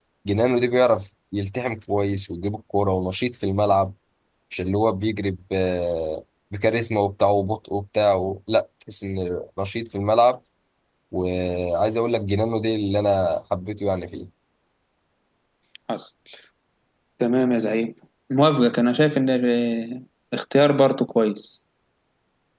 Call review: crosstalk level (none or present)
none